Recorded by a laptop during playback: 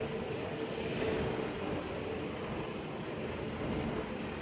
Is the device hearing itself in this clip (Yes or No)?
No